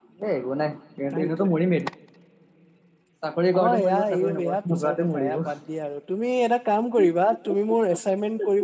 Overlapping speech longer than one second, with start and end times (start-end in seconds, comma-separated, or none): 3.6-5.4